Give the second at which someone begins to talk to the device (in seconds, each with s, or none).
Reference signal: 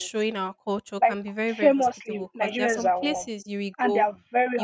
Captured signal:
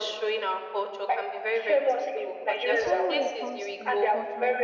2.7 s